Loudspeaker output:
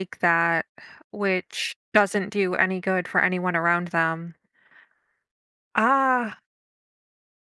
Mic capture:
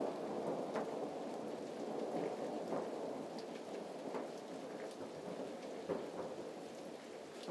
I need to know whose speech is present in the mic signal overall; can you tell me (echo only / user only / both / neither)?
neither